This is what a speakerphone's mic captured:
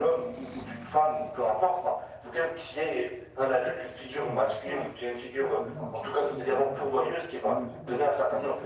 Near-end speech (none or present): present